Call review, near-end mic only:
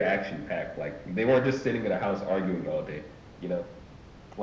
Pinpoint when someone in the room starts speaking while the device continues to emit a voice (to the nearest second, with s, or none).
none